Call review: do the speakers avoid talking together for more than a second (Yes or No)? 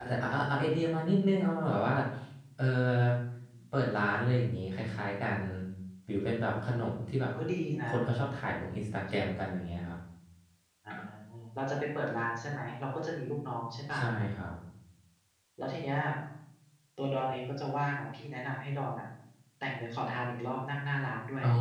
Yes